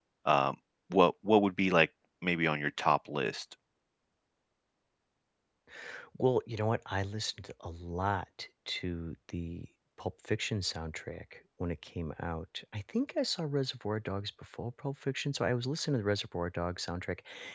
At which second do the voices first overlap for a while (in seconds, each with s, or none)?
none